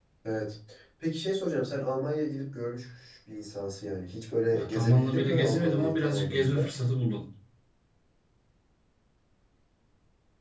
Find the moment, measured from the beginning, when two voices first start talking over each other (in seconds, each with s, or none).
4.5 s